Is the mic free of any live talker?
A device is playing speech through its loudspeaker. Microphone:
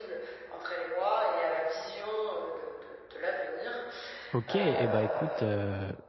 No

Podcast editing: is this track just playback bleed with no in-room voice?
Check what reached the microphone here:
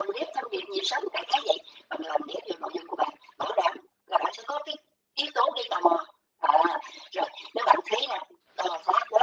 Yes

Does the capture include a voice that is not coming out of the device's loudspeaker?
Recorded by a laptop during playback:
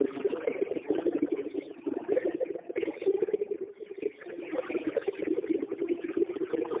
No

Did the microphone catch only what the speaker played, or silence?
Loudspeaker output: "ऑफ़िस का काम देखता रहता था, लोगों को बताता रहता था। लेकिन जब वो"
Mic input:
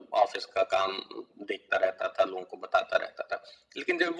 Yes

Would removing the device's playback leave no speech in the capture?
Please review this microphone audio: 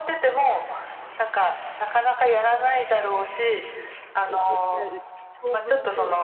No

